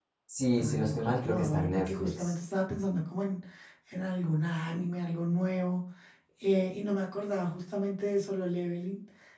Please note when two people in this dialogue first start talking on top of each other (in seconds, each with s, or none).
0.6 s